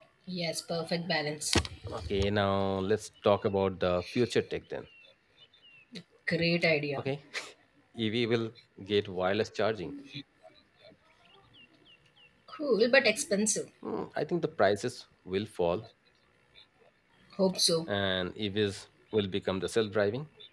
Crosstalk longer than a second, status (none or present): none